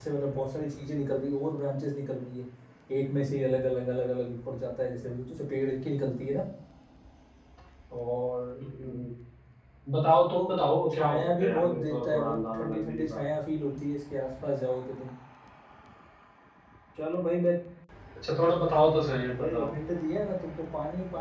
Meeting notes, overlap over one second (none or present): present